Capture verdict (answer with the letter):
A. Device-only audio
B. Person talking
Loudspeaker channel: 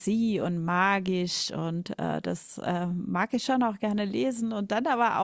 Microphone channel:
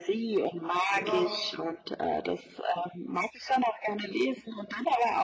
B